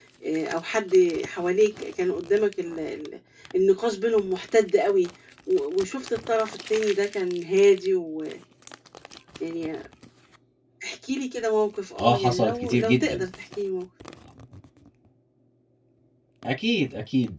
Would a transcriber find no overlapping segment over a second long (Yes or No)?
No